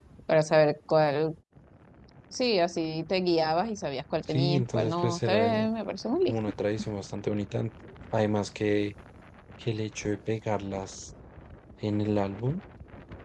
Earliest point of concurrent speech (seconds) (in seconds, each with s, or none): 4.3 s